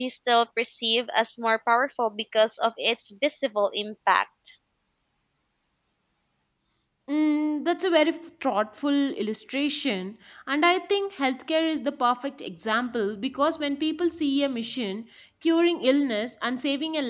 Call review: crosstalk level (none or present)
none